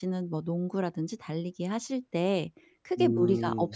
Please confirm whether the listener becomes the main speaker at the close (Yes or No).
No